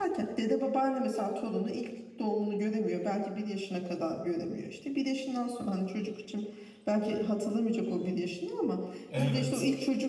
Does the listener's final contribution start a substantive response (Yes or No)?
No